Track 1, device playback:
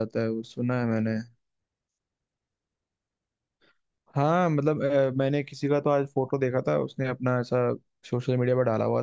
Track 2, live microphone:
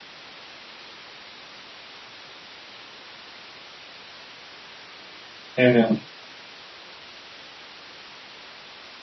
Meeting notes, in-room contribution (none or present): present